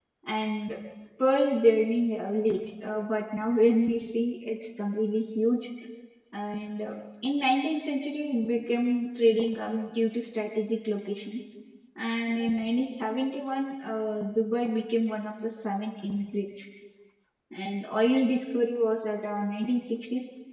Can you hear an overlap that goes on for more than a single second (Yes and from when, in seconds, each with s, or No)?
No